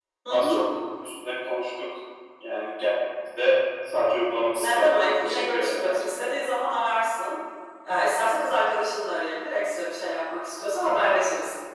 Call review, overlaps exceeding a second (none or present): present